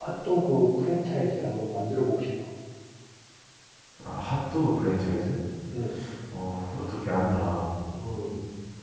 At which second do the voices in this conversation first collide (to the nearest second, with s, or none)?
none